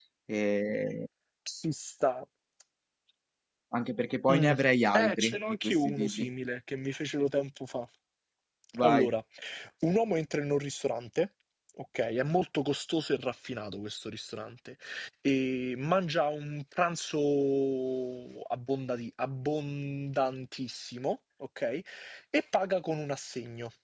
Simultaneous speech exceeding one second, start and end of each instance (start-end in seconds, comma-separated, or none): 5.0-6.3